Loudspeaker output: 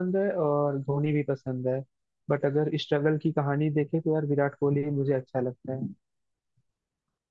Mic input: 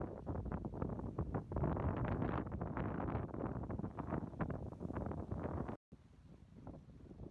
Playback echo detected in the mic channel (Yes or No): No